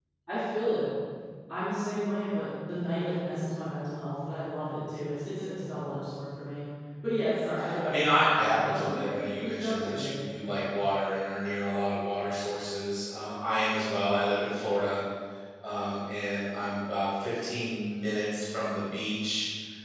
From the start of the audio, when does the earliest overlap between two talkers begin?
8 s

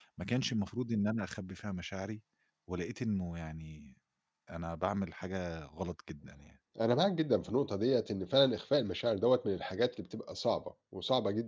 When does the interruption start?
none

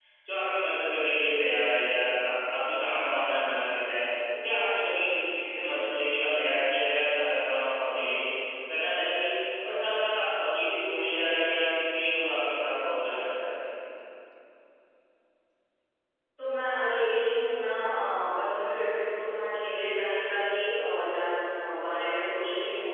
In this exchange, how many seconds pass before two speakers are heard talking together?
none

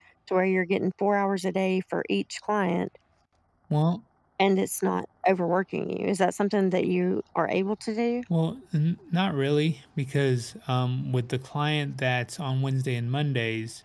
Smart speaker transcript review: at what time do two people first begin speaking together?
none

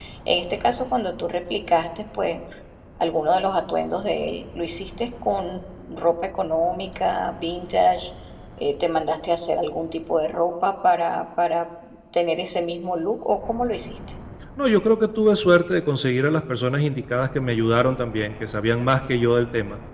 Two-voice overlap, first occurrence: none

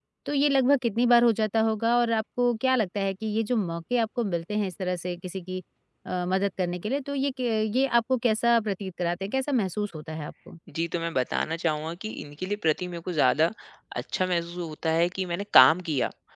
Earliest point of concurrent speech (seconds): none

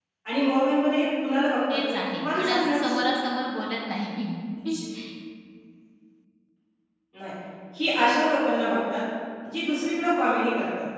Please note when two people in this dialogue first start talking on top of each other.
2 s

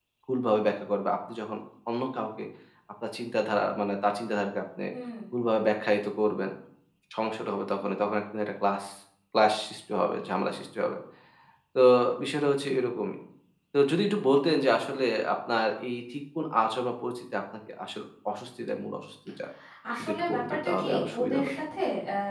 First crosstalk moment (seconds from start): 20 s

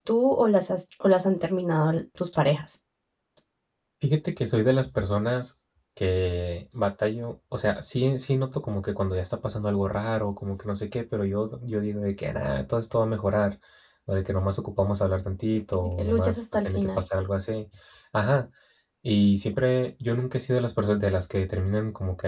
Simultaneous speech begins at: 16 s

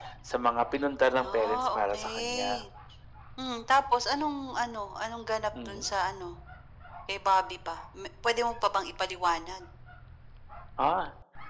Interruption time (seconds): 1 s

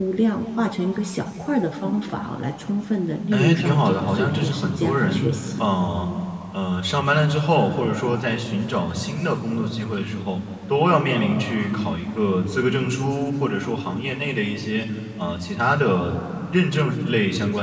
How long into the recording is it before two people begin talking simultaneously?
3 s

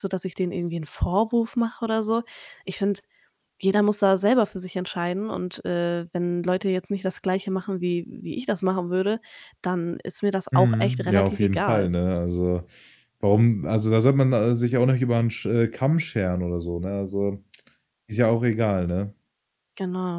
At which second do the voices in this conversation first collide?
11 s

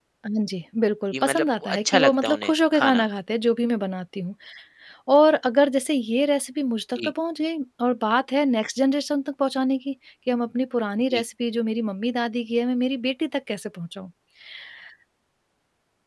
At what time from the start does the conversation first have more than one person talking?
1 s

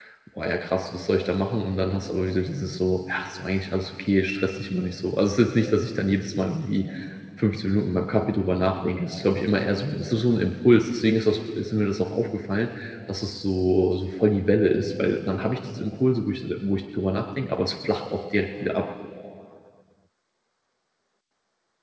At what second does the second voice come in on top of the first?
none

